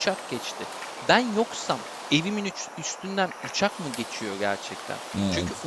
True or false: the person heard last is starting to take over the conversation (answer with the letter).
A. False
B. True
A